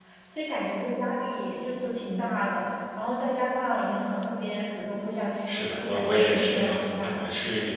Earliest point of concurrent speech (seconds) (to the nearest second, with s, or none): 5 s